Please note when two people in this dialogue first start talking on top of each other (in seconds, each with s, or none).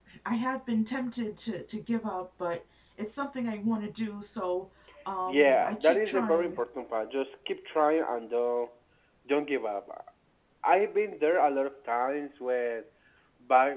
5.3 s